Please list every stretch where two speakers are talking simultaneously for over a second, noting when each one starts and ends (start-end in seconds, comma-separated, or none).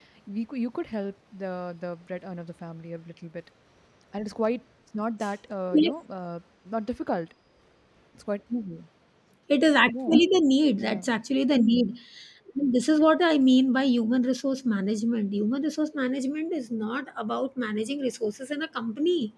none